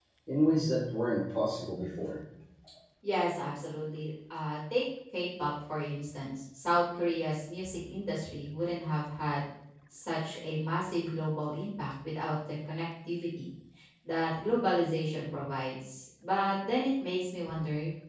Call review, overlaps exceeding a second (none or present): none